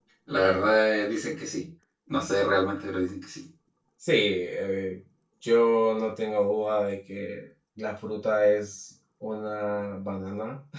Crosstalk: none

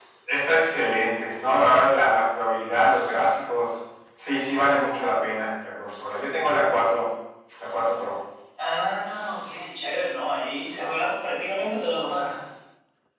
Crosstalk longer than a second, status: none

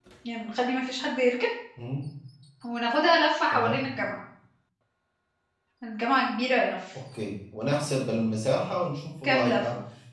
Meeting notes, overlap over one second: none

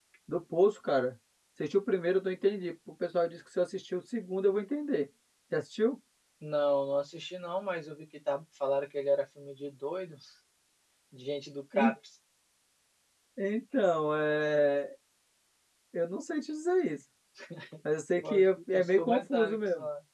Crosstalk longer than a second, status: present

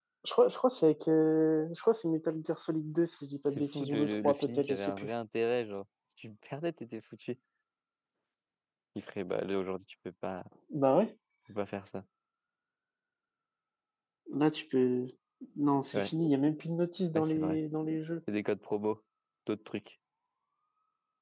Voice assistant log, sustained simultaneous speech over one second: present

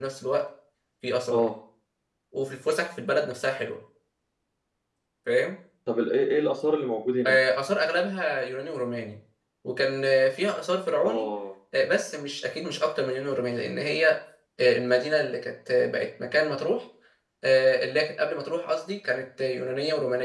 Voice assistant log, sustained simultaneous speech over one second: none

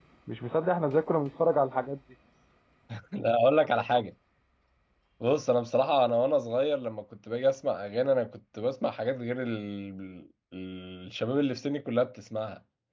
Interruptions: none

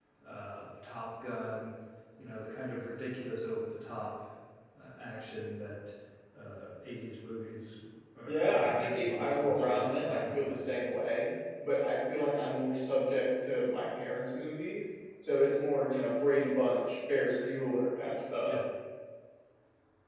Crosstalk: present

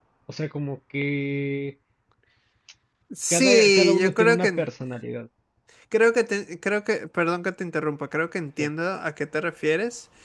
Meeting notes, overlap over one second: present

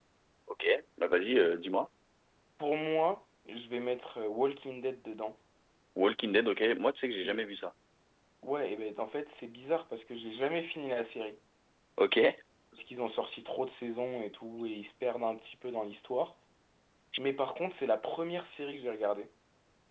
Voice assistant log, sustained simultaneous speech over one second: none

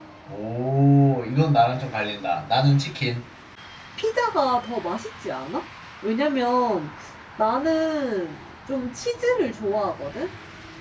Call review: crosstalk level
none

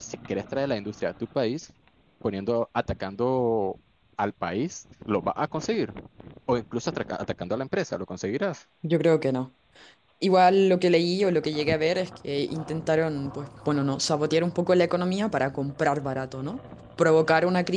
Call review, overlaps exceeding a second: none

